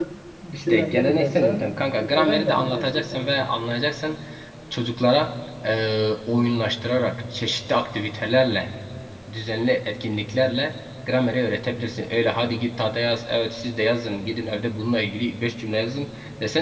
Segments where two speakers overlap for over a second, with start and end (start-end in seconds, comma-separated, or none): 0.5-3.5